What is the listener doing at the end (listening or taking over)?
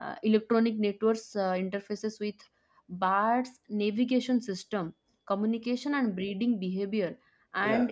listening